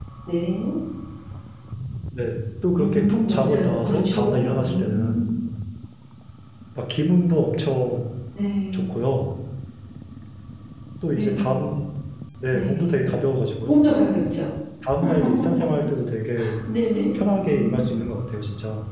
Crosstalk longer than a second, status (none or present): present